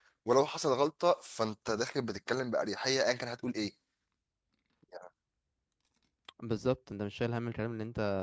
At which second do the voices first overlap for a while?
none

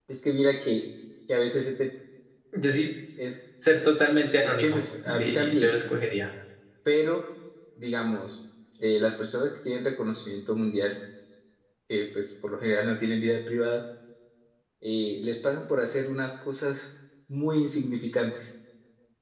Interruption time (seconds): 4 s

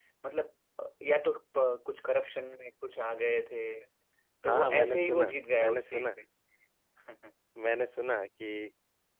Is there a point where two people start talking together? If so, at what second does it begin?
4 s

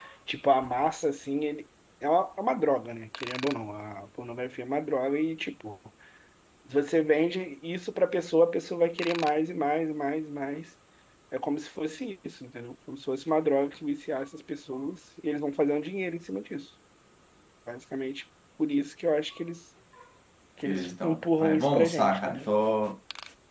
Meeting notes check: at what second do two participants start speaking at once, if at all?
21 s

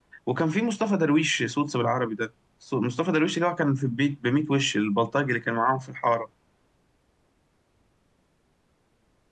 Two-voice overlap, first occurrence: none

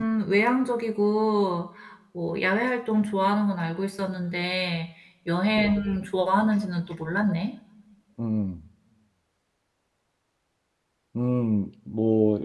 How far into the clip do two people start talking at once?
none

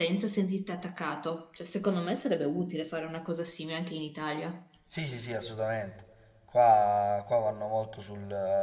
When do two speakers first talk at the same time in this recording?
none

